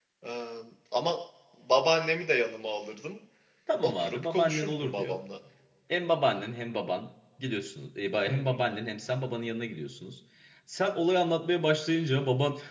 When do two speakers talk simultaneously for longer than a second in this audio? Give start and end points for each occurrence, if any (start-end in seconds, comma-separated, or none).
3.8-5.2